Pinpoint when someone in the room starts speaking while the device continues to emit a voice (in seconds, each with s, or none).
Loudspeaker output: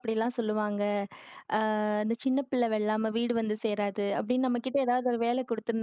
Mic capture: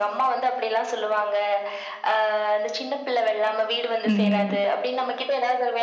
4.0 s